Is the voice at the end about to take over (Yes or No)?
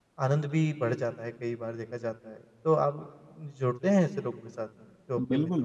Yes